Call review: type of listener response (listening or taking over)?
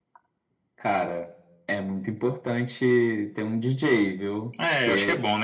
taking over